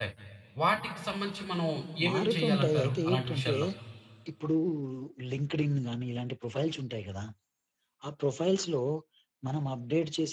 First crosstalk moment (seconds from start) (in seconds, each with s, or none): 2.1 s